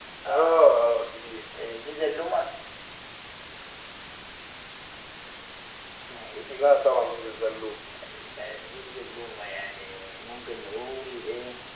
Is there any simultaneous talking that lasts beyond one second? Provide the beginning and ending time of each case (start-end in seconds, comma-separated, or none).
none